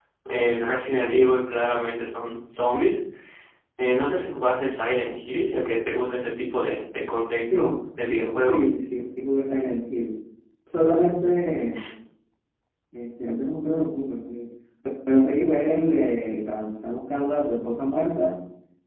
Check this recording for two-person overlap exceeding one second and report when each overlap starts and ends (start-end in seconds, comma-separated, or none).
none